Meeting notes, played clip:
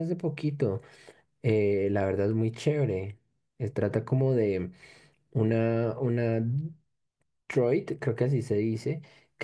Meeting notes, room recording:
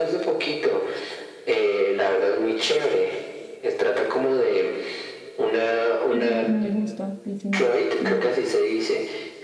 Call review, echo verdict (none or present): present